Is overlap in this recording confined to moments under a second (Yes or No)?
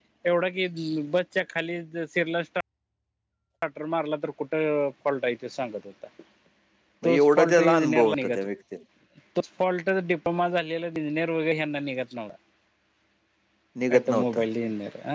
No